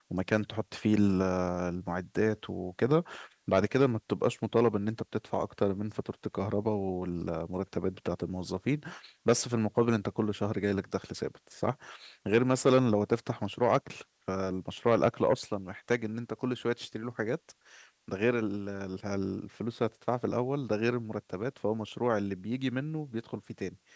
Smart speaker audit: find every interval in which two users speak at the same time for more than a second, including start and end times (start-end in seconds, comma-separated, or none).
none